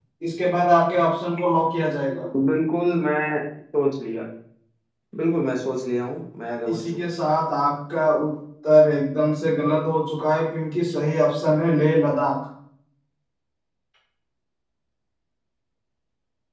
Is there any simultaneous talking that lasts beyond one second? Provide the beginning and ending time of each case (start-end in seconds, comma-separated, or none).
none